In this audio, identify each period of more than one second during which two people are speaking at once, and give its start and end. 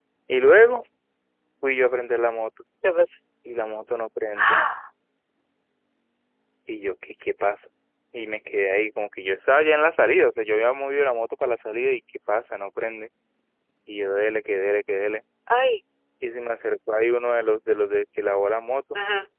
none

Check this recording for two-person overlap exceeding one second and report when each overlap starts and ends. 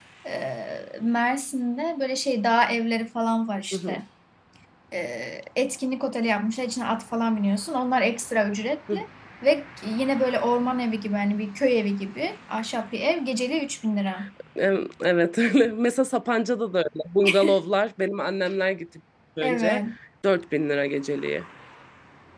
none

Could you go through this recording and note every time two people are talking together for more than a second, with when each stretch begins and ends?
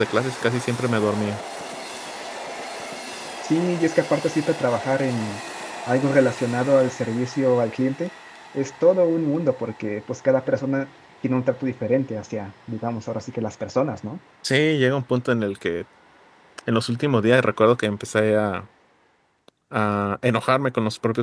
none

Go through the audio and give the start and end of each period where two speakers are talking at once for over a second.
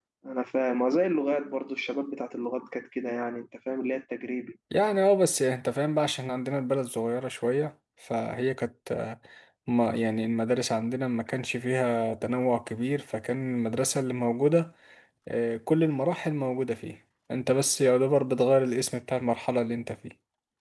none

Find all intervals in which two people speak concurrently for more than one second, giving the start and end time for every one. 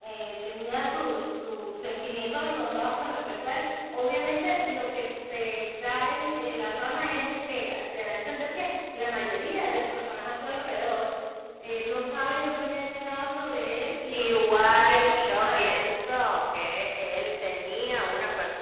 14.1-15.8

